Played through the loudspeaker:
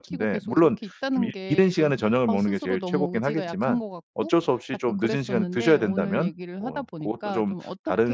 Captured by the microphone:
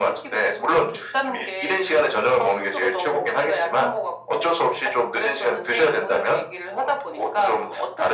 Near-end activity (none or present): none